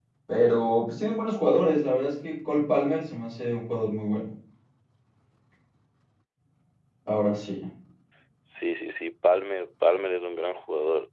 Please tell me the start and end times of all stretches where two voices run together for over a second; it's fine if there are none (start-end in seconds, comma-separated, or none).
none